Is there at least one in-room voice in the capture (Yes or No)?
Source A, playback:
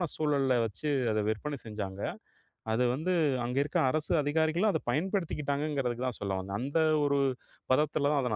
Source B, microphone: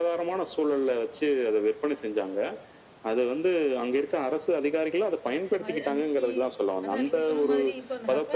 Yes